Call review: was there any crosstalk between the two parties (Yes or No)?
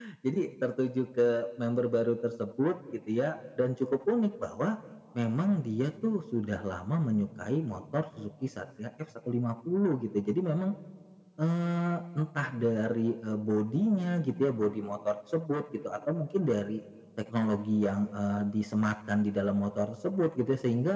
No